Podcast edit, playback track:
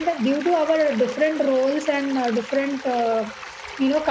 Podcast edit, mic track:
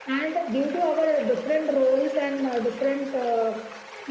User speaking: No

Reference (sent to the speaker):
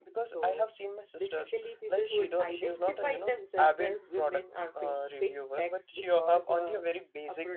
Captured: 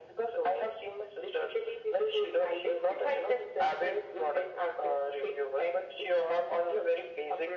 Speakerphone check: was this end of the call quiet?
Yes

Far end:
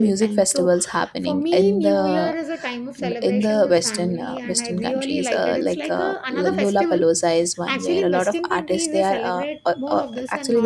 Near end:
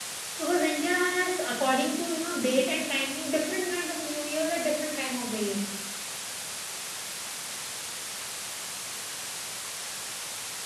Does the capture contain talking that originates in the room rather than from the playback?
Yes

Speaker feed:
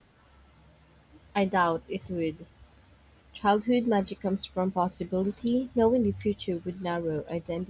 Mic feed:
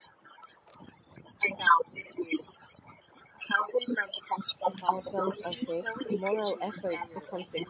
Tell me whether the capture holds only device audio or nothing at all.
No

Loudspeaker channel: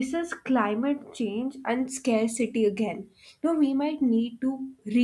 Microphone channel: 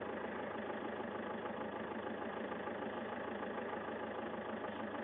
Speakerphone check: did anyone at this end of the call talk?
No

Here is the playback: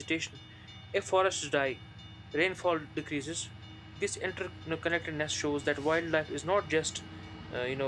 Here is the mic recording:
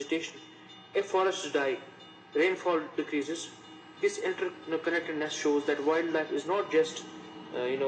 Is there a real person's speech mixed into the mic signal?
No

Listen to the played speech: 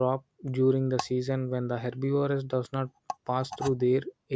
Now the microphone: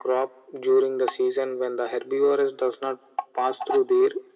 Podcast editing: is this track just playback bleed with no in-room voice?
Yes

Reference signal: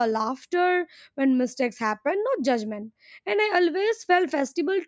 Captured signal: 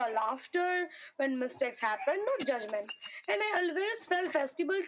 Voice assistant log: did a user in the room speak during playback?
No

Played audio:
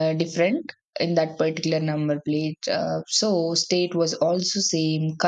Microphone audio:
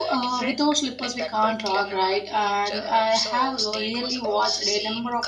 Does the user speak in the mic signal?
Yes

